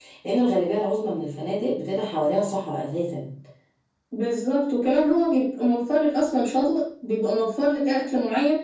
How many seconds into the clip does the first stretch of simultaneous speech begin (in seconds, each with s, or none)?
none